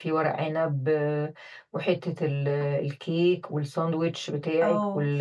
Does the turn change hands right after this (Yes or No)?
Yes